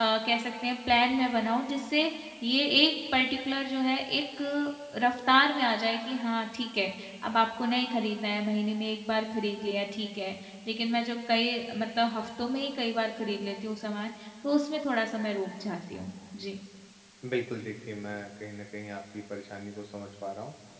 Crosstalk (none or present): none